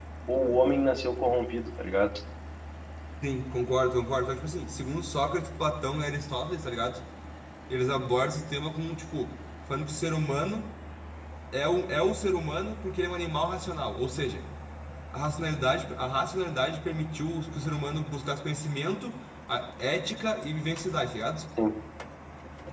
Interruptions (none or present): none